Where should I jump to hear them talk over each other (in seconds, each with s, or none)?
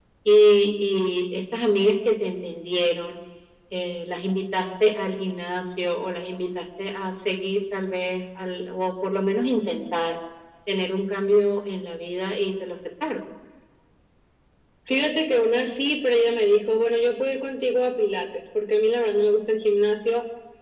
none